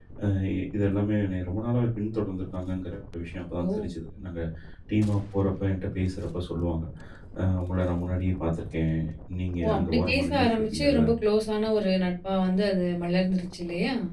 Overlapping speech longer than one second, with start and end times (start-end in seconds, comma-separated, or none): 9.6-11.0